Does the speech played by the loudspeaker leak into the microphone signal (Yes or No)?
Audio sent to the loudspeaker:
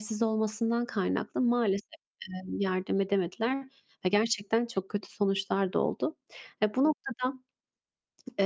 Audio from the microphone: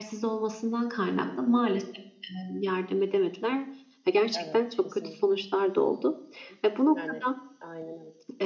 Yes